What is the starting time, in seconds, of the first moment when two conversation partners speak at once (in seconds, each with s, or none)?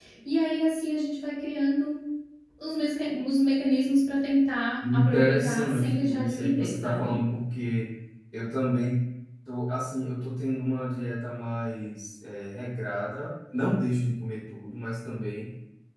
4.8 s